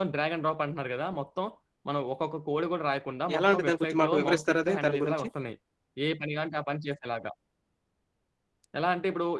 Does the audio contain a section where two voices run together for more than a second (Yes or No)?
Yes